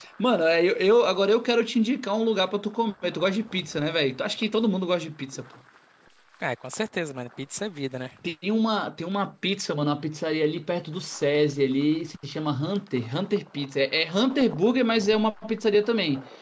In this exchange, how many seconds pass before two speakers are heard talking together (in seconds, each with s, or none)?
none